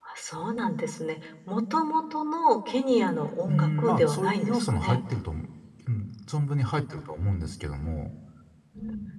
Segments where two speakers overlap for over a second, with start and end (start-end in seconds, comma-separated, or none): 3.5-5.0